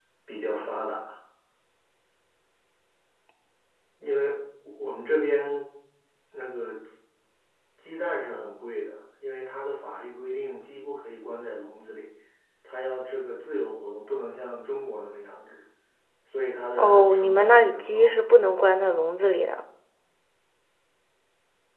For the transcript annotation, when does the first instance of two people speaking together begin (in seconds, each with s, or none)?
16.8 s